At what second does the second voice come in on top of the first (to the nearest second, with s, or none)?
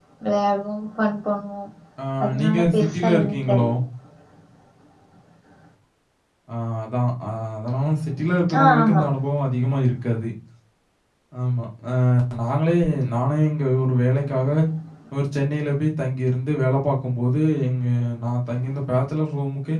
2 s